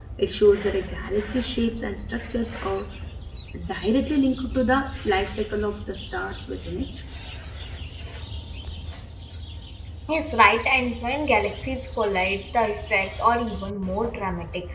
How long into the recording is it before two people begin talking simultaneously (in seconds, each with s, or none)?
none